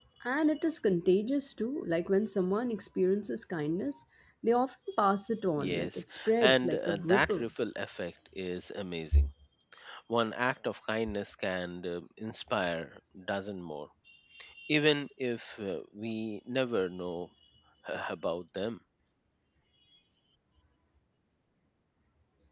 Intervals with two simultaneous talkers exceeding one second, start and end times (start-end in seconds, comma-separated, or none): 5.6-7.5